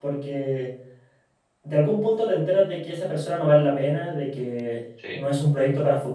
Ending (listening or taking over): listening